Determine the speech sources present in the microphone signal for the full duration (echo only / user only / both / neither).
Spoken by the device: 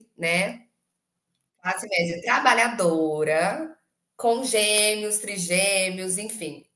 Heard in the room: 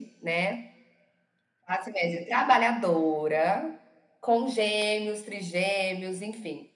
echo only